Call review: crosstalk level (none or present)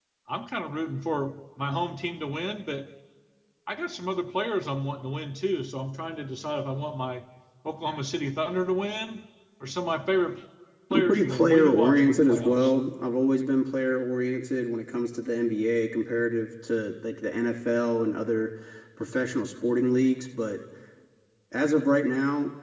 present